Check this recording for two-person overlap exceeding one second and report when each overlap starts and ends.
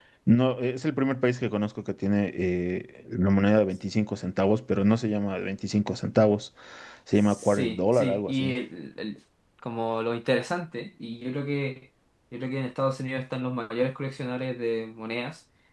7.1-8.5

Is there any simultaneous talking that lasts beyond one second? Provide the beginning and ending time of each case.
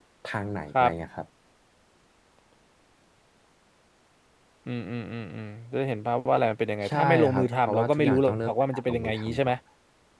6.9-9.5

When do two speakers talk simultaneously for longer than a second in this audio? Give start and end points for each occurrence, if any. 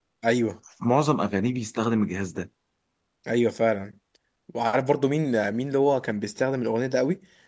none

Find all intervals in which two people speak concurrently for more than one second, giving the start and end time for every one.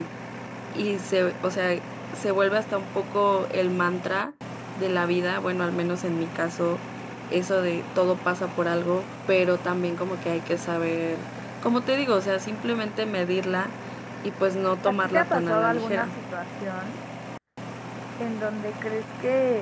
14.9-16.1

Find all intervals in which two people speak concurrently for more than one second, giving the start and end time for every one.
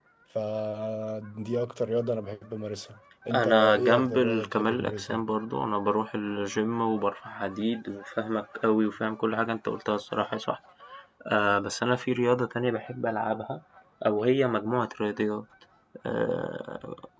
3.3-5.2

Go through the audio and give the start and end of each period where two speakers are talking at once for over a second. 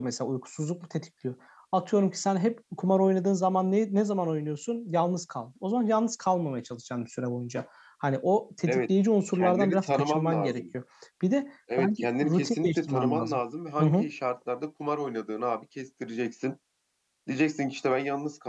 9.3-10.6, 11.8-13.4

